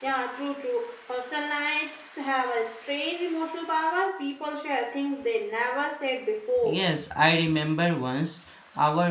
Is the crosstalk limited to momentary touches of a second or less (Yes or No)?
Yes